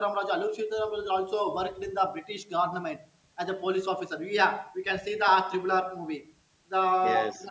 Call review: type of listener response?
listening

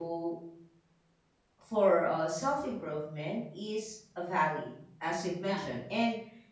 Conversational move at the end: listening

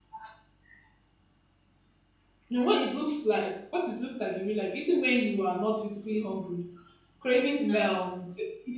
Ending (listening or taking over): listening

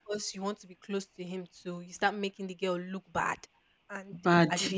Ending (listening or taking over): listening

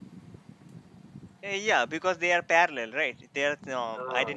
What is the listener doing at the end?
taking over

